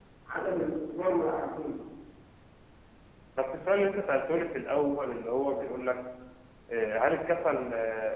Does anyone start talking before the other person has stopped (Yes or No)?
No